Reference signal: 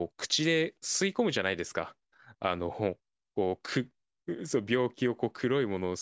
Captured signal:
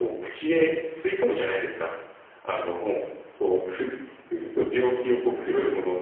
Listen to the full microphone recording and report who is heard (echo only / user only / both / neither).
echo only